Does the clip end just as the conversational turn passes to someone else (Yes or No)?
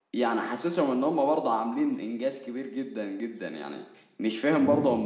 No